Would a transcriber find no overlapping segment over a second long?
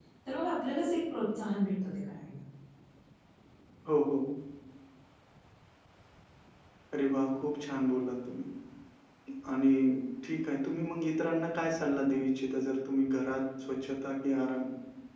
Yes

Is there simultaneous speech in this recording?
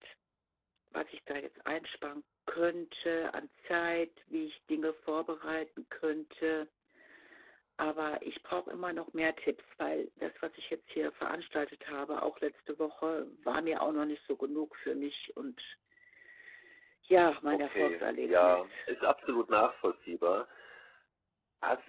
Yes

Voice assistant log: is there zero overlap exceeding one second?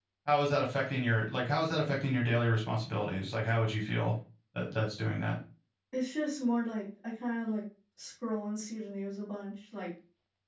Yes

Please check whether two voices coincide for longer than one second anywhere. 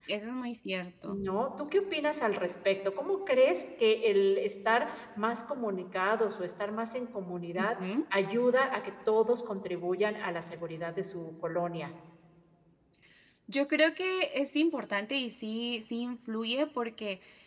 No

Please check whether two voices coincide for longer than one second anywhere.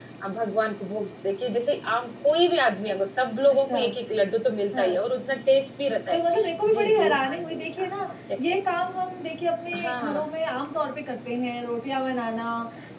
Yes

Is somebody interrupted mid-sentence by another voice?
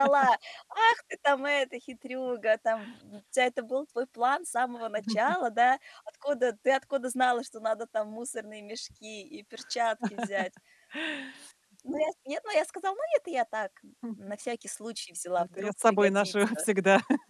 Yes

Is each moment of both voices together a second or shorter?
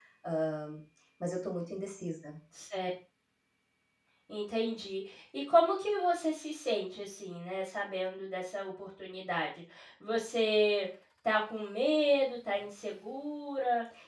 Yes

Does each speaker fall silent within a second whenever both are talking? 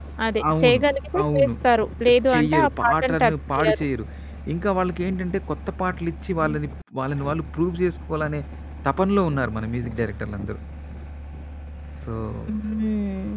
No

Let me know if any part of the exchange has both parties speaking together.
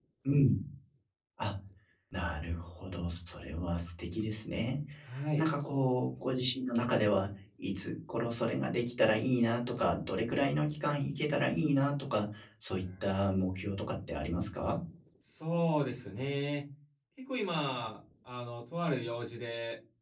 No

